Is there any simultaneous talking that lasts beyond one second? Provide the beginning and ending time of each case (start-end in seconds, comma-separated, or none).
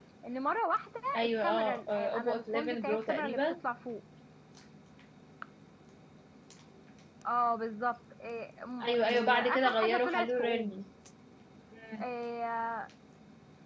1.2-3.4, 8.8-10.8